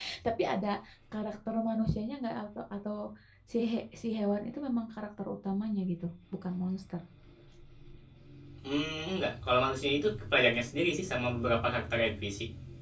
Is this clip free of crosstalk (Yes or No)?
Yes